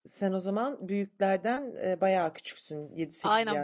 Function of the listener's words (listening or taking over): taking over